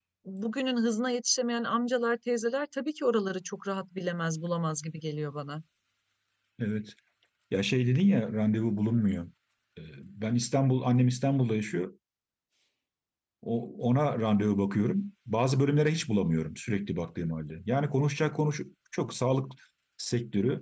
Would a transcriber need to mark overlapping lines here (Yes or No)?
No